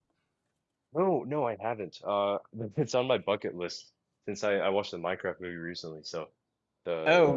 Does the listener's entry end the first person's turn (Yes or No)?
Yes